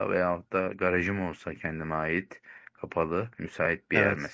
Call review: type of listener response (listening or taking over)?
listening